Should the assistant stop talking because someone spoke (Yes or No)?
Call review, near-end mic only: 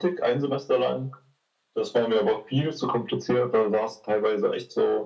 No